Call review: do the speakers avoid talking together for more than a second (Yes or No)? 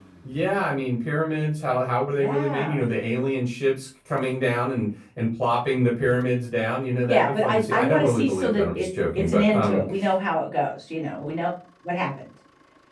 No